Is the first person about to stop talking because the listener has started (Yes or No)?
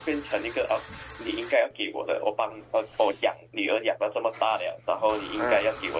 No